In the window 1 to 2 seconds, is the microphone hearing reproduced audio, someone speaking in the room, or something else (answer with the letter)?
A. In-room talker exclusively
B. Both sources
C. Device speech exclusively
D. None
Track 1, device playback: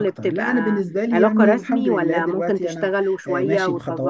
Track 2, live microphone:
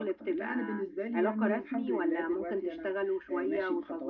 C